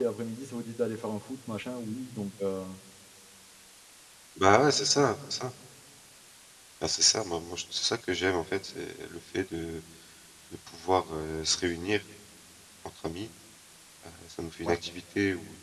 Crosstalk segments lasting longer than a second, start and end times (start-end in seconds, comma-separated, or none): none